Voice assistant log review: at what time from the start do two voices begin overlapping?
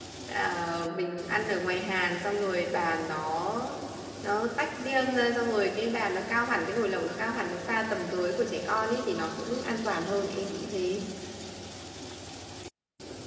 none

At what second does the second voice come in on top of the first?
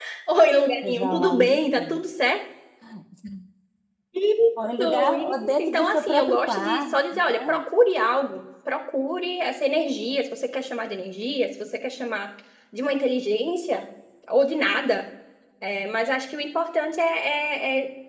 0.8 s

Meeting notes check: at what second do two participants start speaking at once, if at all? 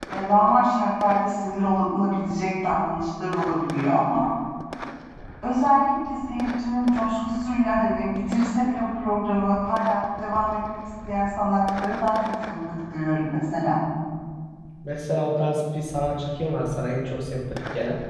none

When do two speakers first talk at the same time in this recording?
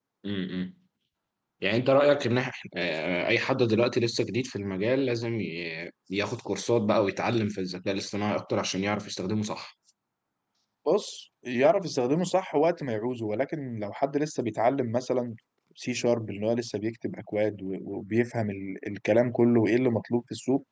none

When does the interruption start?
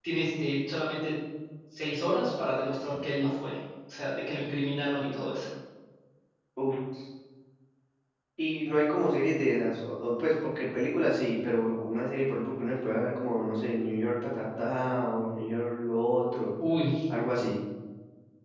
none

